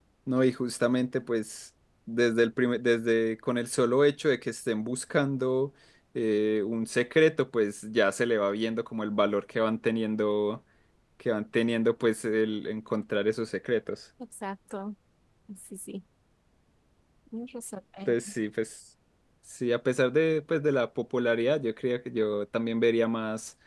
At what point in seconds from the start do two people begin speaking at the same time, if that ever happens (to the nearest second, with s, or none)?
none